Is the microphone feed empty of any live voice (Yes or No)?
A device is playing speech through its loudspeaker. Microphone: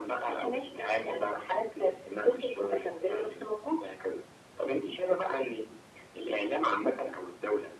Yes